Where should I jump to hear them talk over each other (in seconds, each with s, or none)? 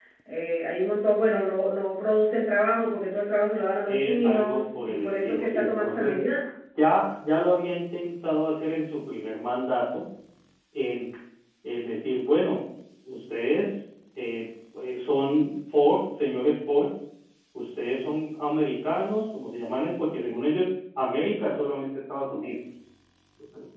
3.9 s